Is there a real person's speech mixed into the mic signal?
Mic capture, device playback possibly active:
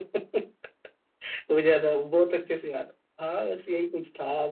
No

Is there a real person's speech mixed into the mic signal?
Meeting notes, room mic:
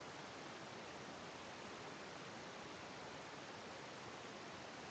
No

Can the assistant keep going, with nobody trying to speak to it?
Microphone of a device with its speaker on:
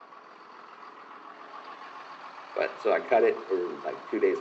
No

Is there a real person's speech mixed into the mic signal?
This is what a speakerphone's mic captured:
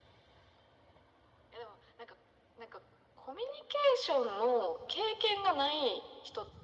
No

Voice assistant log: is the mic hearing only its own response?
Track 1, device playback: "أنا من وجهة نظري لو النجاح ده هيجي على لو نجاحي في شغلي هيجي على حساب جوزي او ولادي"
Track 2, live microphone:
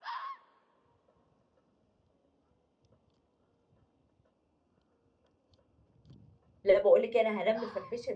No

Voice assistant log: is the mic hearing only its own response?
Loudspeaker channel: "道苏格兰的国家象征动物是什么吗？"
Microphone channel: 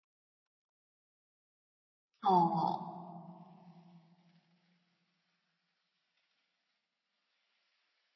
No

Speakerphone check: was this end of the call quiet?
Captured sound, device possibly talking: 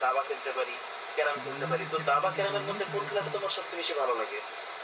No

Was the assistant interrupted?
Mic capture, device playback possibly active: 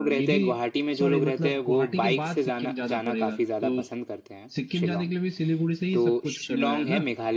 Yes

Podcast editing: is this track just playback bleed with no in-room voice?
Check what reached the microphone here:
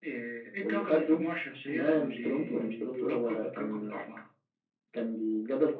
Yes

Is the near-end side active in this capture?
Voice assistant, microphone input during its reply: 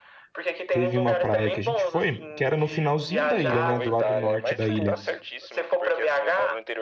Yes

